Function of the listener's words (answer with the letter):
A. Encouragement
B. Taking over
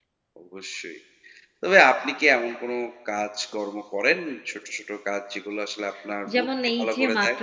B